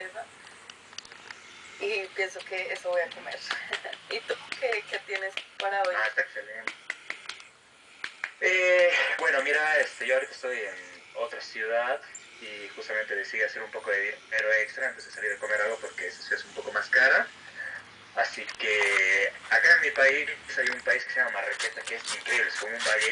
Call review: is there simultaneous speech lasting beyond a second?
No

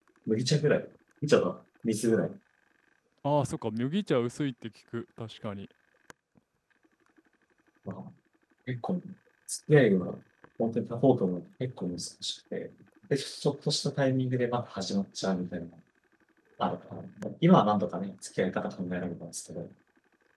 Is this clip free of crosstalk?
Yes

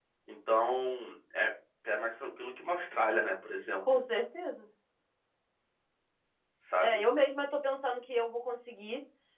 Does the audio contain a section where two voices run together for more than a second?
No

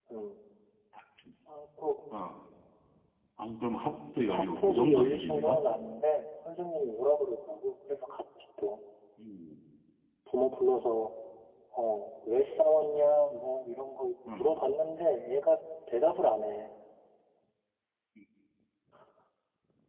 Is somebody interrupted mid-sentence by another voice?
Yes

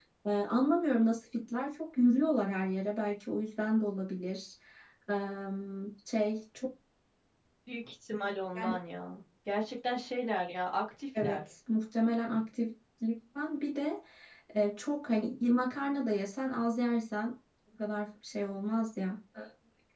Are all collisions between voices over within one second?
Yes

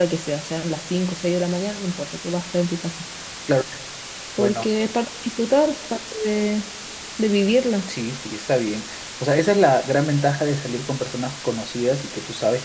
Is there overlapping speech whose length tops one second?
No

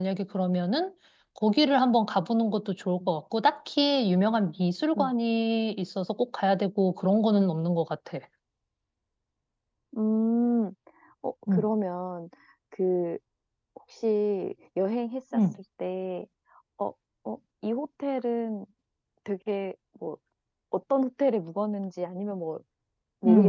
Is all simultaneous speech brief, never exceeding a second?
Yes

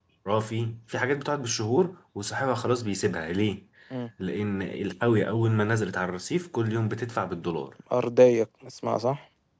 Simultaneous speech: No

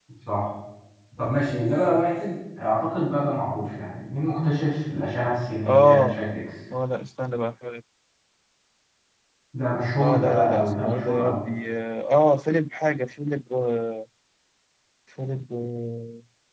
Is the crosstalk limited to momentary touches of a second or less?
No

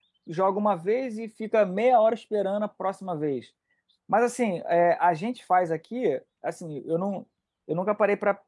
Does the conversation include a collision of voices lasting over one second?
No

